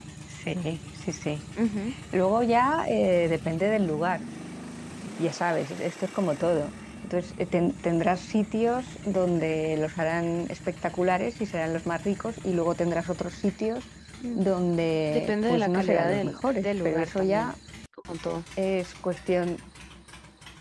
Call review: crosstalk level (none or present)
present